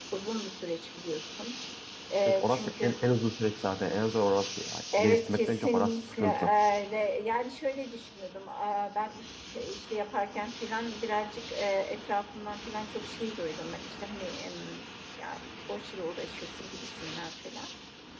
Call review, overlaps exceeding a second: present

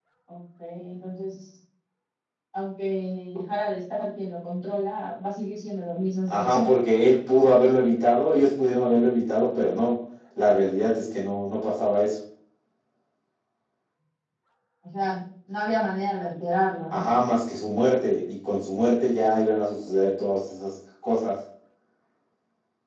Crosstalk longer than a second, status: none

